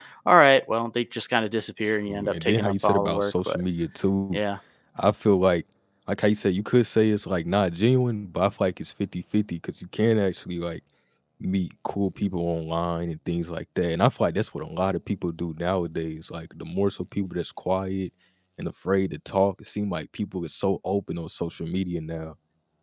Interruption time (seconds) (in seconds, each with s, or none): 2.1 s